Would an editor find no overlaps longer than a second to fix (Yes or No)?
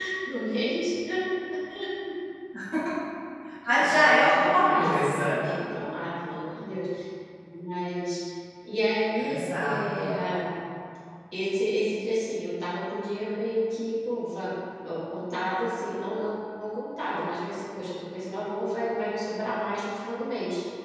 No